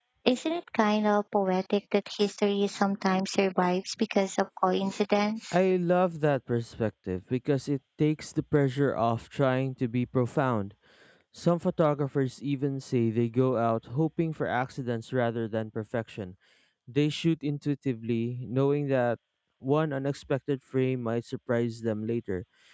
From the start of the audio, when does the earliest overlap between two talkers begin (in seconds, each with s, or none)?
none